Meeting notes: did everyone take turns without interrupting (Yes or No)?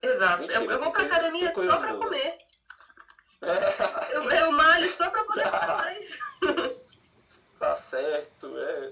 No